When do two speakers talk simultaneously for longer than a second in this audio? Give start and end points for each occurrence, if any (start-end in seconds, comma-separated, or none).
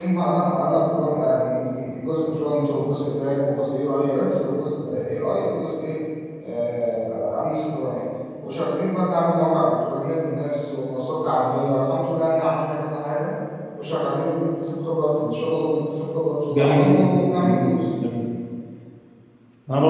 16.5-17.8